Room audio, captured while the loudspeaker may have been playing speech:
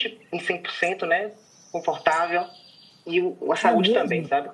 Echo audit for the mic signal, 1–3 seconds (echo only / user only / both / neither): echo only